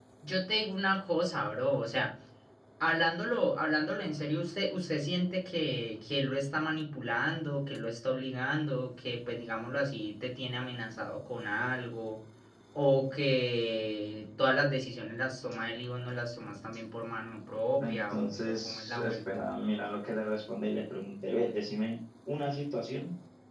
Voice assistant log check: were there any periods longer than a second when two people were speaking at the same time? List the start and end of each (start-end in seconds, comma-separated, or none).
17.8-19.5